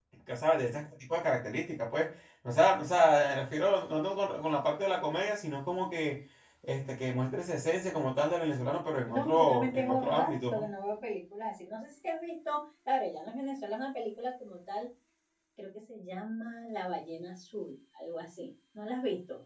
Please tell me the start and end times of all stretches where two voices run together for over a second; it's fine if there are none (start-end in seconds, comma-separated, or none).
9.1-10.6